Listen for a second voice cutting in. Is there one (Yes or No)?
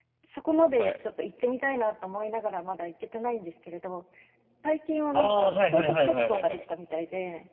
Yes